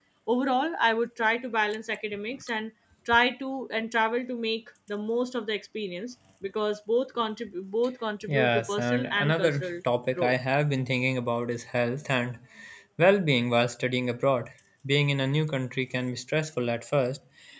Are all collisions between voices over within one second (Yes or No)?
No